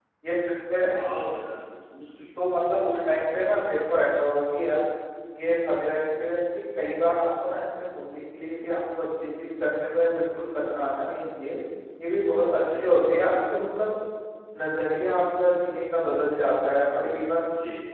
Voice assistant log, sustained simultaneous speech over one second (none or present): none